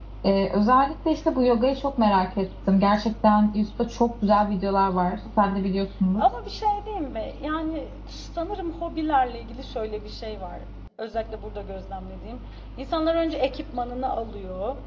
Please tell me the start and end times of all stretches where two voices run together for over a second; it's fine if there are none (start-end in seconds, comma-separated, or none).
none